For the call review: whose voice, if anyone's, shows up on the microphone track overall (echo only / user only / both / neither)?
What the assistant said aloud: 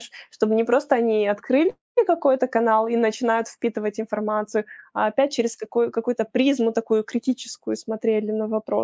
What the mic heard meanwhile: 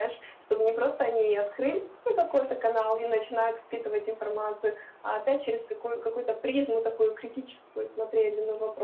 echo only